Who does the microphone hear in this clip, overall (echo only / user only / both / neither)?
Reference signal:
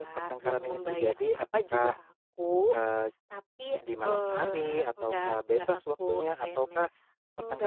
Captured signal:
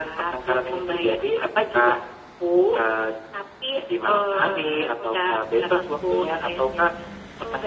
echo only